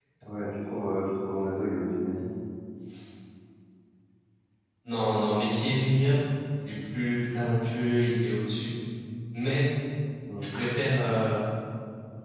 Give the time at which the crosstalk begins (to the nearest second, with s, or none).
none